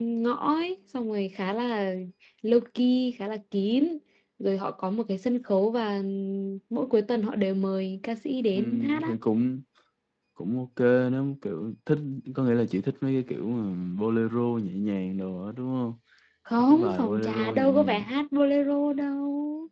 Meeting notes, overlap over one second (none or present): present